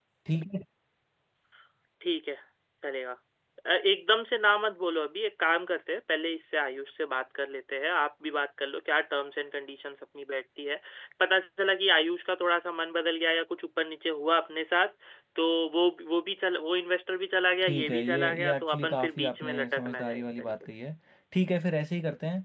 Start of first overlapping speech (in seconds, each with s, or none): 17.6 s